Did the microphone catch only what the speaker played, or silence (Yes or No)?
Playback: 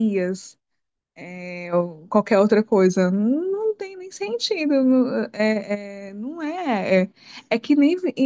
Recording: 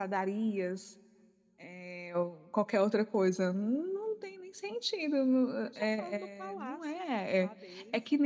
No